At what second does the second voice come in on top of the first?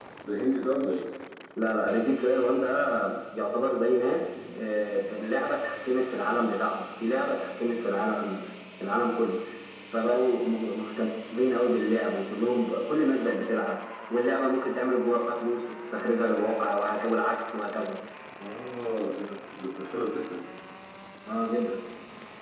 none

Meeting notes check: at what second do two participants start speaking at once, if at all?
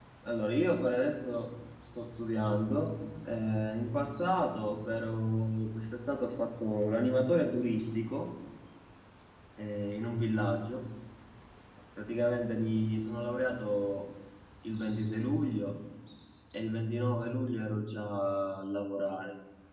none

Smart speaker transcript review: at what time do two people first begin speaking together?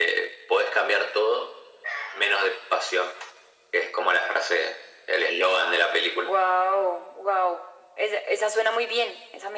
none

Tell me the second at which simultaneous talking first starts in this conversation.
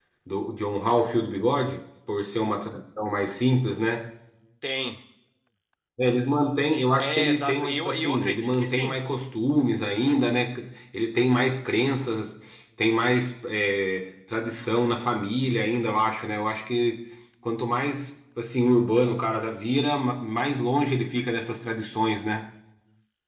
6.7 s

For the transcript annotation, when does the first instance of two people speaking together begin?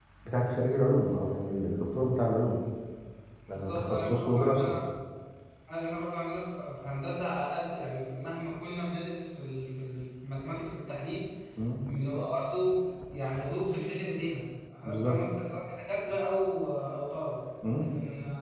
3.5 s

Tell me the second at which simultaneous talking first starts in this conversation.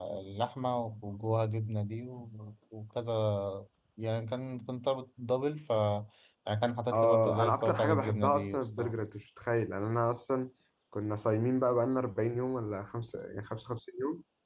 6.9 s

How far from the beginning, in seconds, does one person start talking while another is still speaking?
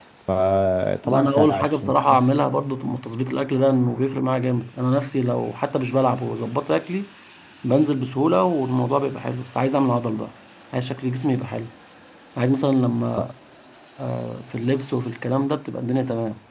1.1 s

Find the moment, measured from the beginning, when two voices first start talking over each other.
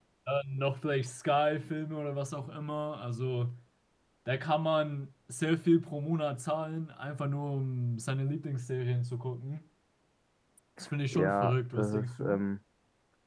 11.1 s

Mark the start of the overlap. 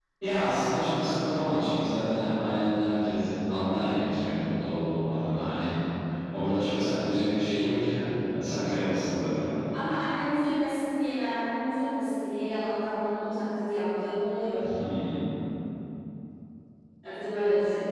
none

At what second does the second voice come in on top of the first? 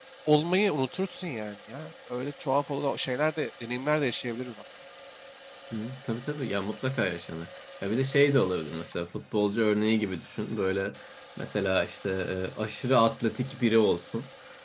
none

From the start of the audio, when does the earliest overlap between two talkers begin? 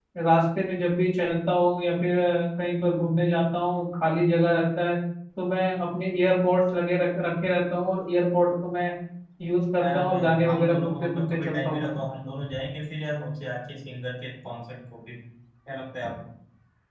9.8 s

